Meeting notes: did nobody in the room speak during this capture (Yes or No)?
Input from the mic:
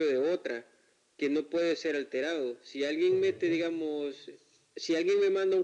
No